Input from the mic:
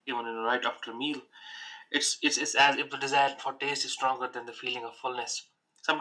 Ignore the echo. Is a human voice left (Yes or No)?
No